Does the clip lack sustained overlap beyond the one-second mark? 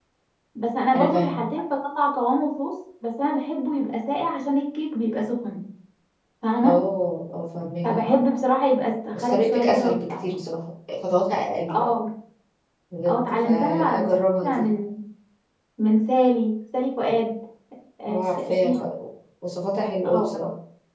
No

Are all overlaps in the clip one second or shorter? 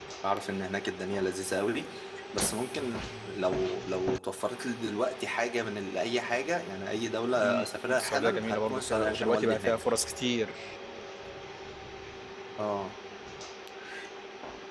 No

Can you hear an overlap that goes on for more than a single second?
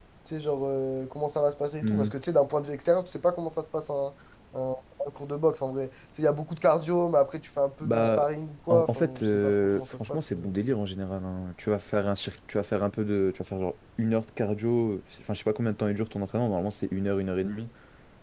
Yes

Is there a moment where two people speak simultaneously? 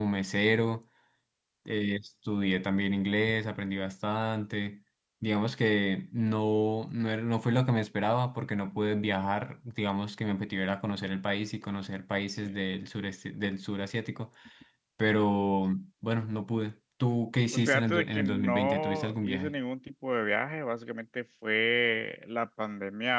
Yes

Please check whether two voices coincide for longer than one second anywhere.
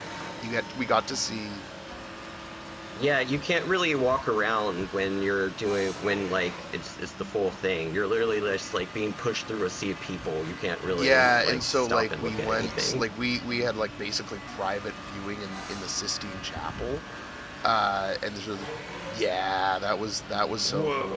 Yes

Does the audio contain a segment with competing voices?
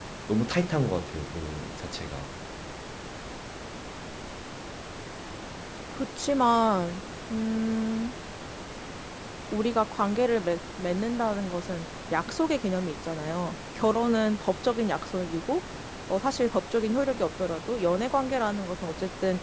No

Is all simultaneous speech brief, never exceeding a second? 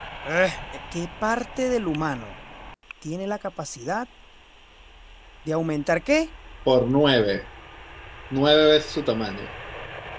Yes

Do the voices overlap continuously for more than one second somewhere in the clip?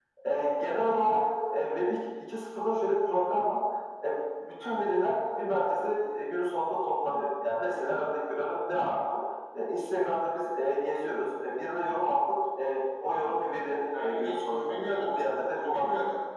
Yes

